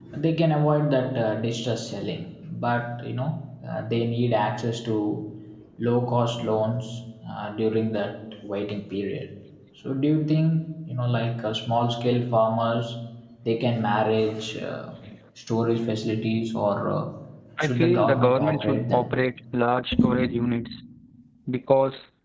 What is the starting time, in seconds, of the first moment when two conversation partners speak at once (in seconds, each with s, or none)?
17.6 s